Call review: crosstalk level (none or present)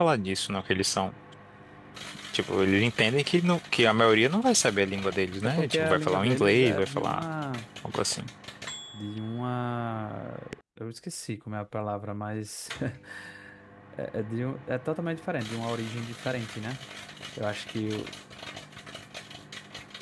present